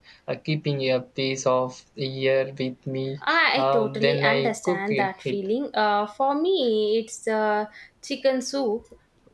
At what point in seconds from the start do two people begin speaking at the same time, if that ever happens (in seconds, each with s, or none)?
3.6 s